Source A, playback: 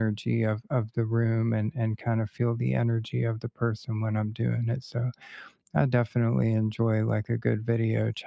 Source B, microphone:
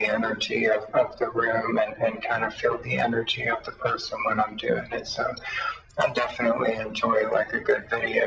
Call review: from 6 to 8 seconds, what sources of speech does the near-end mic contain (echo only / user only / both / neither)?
echo only